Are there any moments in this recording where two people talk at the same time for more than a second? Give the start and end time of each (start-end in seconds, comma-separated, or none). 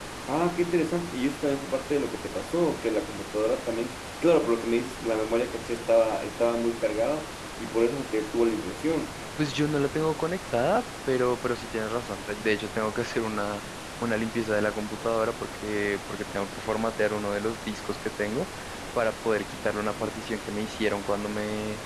none